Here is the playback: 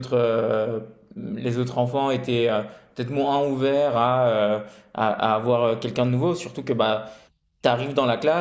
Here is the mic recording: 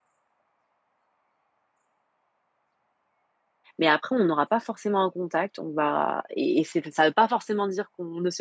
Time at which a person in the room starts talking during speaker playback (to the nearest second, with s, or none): 4 s